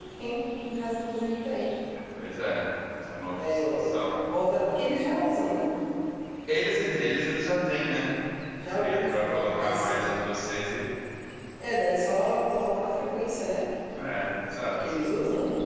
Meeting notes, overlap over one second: present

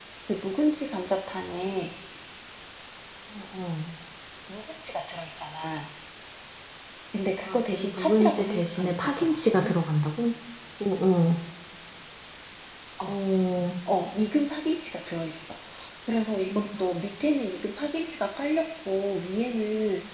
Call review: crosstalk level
present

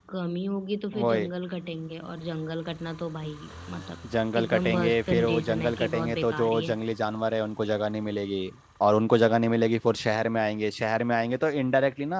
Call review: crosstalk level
present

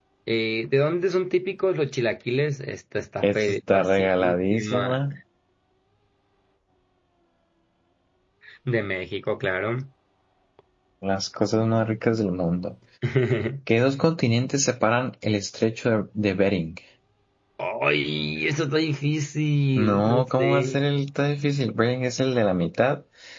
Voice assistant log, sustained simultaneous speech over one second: present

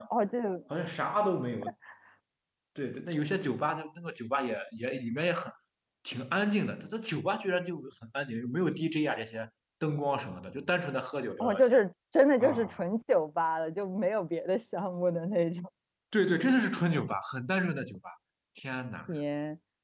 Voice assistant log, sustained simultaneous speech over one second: none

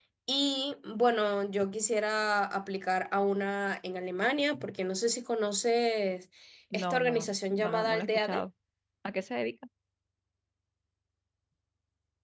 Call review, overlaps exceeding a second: present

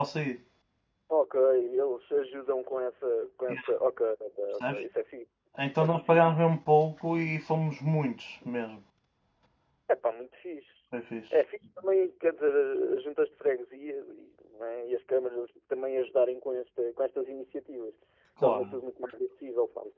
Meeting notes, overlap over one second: none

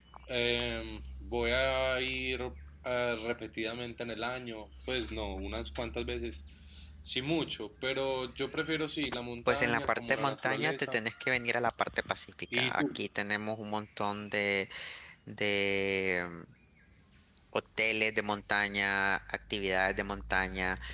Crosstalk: present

